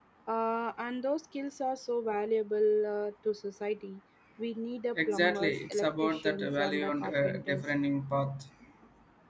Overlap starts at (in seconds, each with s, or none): 5.1 s